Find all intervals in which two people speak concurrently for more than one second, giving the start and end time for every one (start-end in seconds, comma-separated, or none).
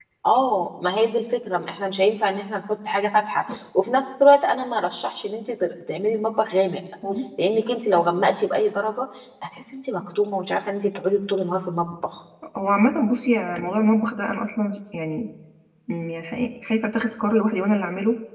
none